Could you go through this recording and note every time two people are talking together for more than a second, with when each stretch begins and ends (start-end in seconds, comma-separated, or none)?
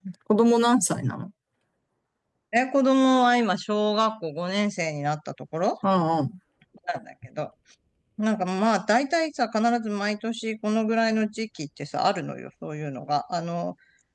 none